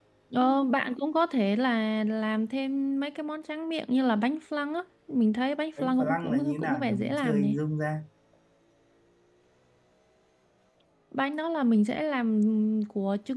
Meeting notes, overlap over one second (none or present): present